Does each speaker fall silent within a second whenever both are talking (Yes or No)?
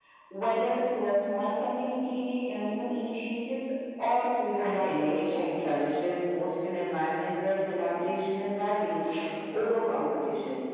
No